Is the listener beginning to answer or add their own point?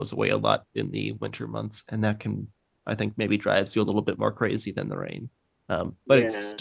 No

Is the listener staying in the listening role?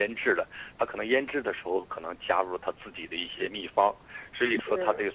Yes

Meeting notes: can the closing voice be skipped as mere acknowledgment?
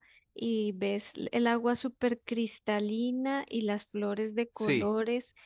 Yes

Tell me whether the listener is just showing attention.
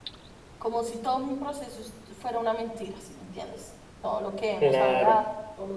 Yes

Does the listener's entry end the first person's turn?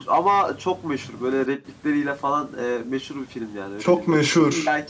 No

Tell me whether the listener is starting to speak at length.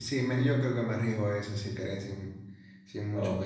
Yes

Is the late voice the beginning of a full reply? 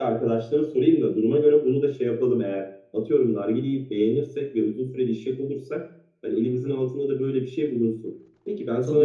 Yes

